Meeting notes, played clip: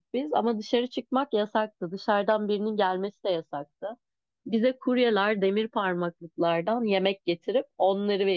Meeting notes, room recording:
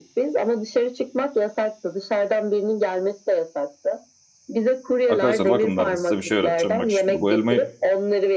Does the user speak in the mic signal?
Yes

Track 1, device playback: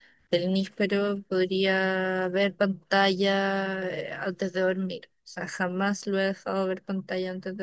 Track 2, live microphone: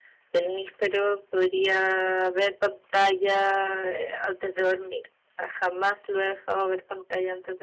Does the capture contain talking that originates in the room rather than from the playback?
No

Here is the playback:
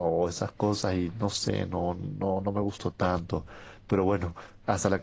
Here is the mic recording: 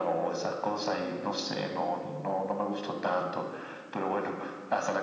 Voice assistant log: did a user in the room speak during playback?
No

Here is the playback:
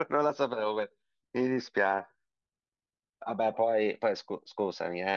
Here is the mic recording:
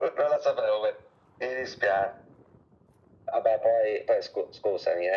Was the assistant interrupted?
No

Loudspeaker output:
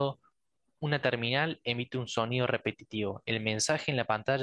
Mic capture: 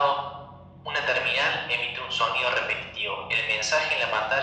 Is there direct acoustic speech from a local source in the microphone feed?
No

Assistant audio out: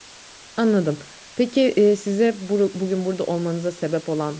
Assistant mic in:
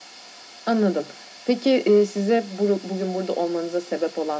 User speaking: No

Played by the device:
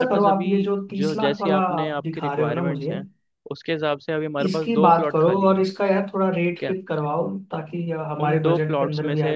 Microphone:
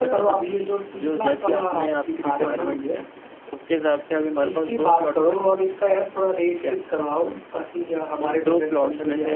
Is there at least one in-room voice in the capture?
No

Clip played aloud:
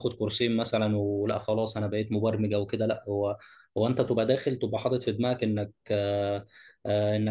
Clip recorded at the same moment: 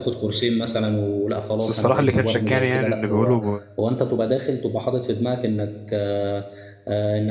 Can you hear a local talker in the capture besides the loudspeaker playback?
Yes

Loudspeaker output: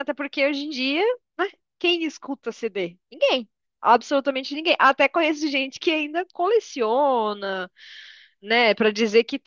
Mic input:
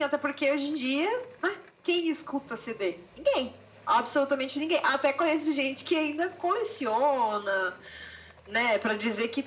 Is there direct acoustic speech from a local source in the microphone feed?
No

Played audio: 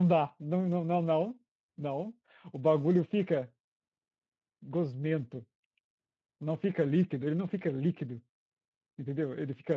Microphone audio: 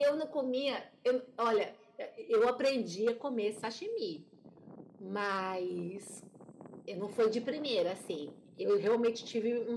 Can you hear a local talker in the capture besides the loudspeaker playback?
Yes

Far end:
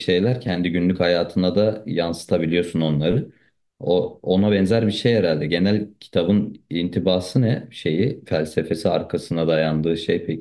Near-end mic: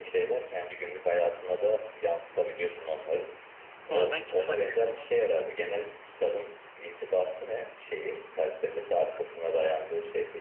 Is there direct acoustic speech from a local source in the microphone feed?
Yes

